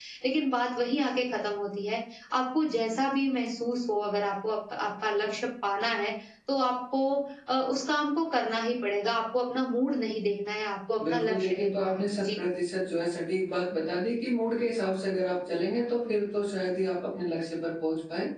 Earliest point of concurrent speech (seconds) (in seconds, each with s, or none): 11.0 s